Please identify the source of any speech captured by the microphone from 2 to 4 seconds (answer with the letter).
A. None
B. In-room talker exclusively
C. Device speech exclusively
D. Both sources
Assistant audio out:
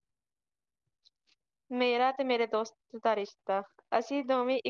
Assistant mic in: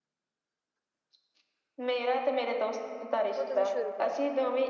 D